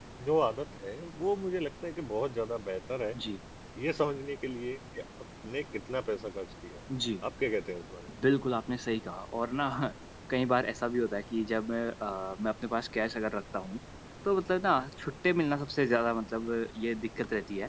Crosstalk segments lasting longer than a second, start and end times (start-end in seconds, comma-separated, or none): none